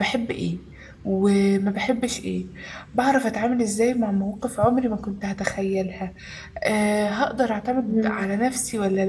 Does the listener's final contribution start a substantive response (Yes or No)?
No